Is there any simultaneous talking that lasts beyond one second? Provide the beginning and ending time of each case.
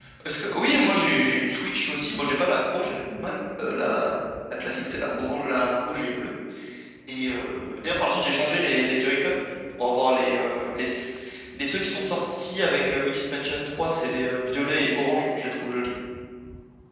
none

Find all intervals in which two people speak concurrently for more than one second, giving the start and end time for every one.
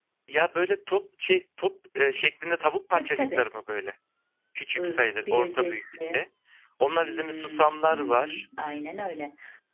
4.8-6.2, 7.0-8.4

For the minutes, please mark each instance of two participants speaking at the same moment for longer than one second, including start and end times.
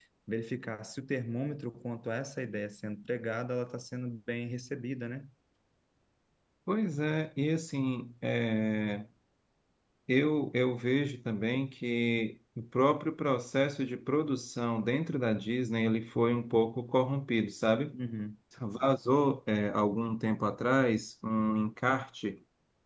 none

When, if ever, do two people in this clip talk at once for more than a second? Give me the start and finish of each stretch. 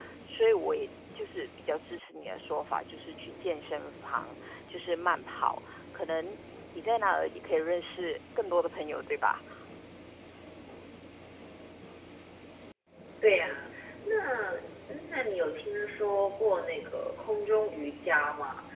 none

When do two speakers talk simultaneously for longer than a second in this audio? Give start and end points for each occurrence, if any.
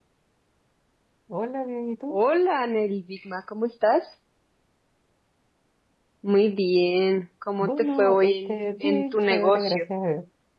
7.6-9.8

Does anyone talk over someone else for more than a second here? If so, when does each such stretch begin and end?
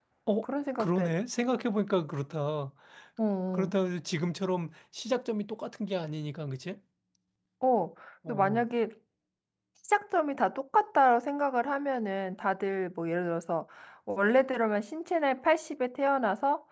none

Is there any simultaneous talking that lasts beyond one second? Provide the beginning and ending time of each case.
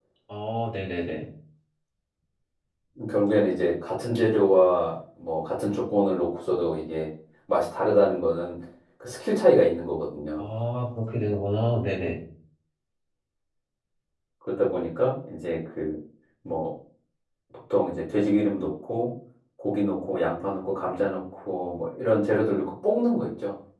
none

